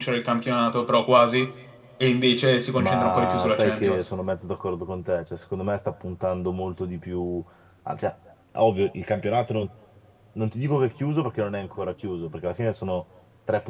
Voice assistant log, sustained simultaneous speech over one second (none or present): present